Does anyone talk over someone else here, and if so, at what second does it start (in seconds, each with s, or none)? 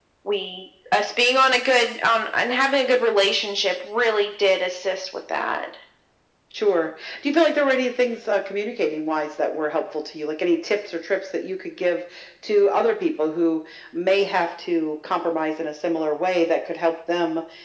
none